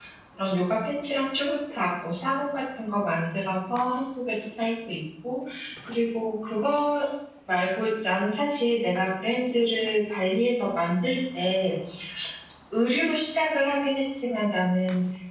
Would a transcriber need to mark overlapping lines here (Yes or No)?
No